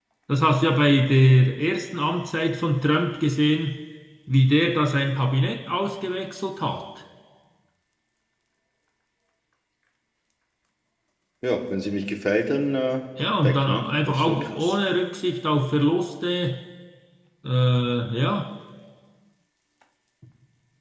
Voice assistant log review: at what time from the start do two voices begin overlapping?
13.4 s

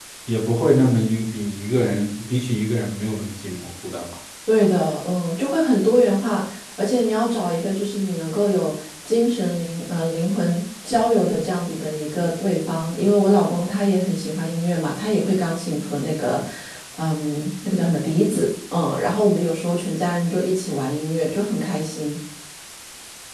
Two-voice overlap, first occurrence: none

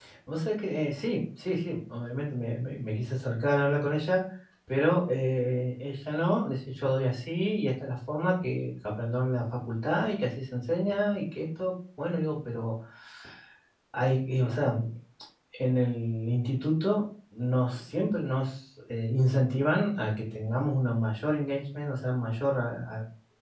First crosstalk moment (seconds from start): none

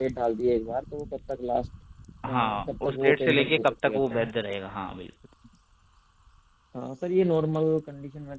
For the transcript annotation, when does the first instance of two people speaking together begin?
2.3 s

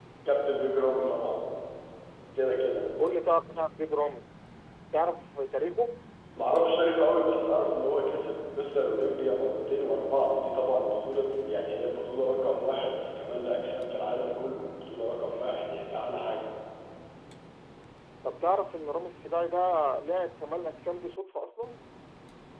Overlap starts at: none

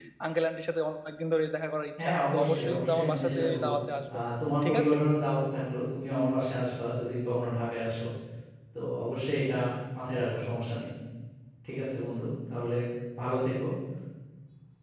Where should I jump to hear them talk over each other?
2.0 s

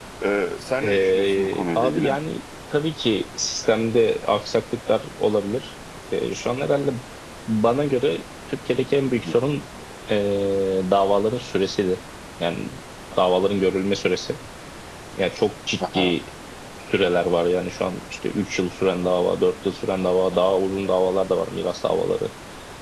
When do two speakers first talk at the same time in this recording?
0.8 s

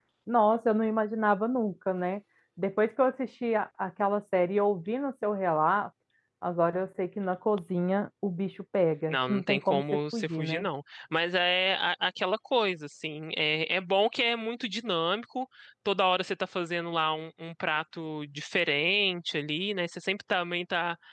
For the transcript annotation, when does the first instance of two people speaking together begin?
9.1 s

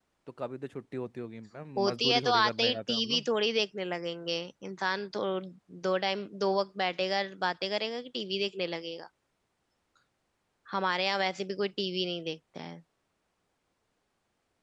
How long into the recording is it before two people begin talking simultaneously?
1.8 s

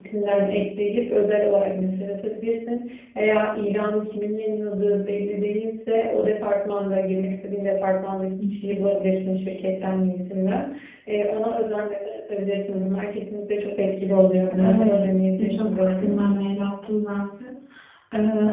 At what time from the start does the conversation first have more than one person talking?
14.5 s

